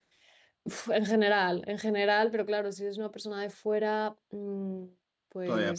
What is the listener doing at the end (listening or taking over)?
listening